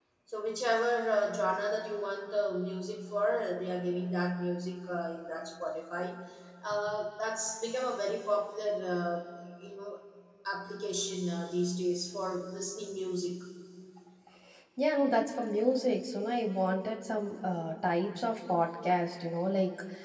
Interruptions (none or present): none